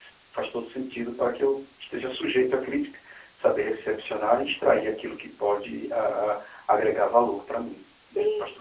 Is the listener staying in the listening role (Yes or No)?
No